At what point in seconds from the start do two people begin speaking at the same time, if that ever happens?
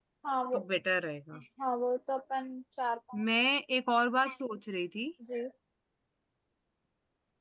none

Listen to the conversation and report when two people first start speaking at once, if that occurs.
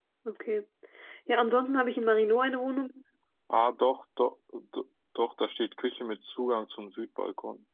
none

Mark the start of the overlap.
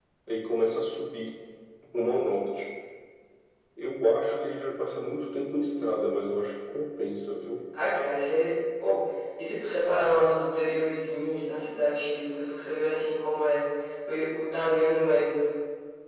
none

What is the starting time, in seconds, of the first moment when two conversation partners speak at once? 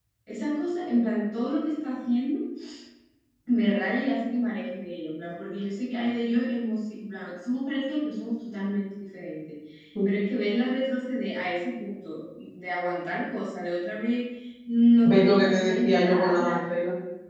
15.0 s

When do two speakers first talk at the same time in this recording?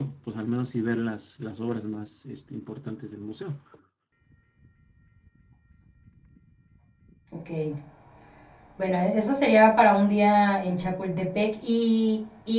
none

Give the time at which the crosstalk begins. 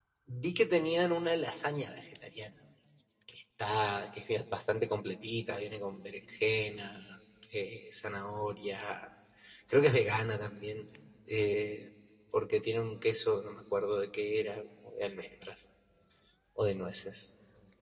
none

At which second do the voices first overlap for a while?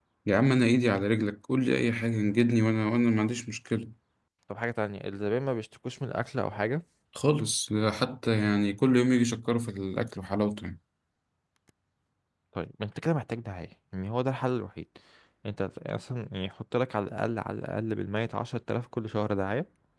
none

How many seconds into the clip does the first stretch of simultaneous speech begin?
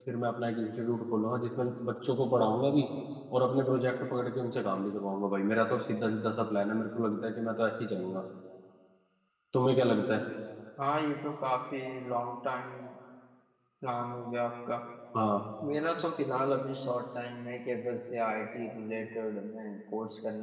none

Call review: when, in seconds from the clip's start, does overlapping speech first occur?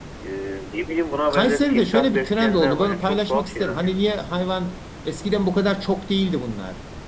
1.3 s

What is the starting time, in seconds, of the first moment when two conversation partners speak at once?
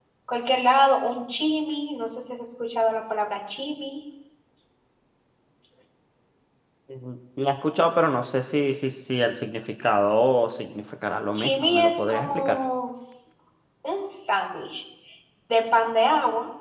11.3 s

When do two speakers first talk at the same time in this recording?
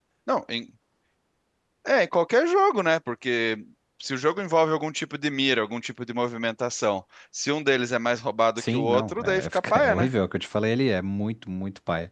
8.6 s

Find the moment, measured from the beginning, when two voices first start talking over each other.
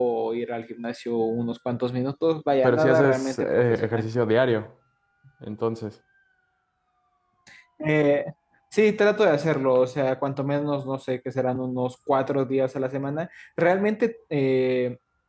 2.6 s

